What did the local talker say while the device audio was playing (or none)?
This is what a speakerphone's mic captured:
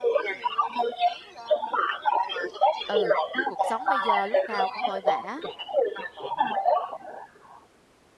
Ừ, cuộc sống bây giờ lúc nào cũng vội vã.